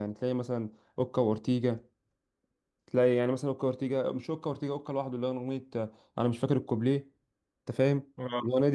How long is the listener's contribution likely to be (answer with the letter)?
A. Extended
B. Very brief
A